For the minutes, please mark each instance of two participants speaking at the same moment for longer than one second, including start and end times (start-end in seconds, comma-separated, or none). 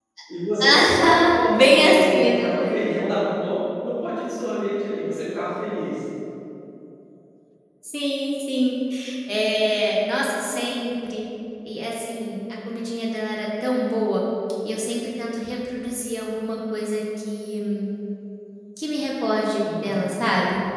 0.6-2.8